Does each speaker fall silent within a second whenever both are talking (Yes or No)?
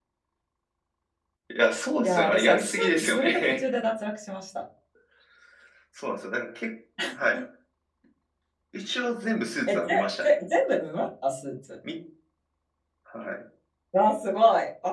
No